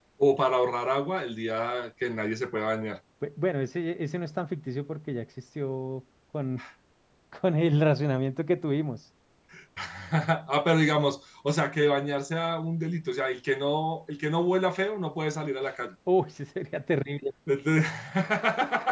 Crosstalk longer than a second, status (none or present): none